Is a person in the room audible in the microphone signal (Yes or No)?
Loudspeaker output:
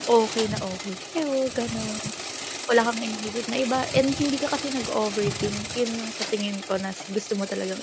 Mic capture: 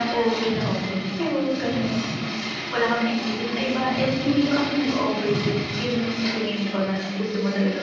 No